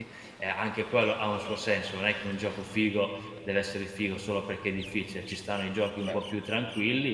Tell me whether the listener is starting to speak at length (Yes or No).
No